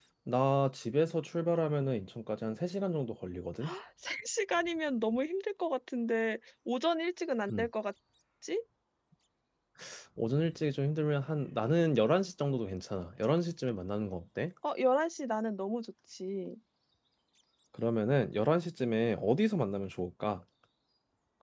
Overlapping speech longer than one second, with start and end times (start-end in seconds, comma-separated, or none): none